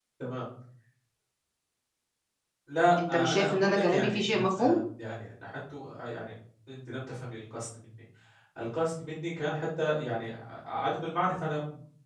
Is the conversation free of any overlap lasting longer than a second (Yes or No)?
No